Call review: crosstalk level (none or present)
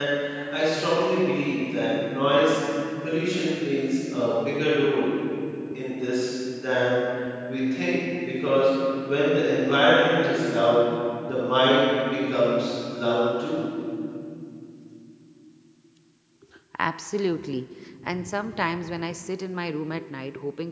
none